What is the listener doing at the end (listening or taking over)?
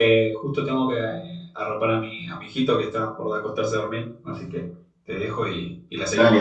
taking over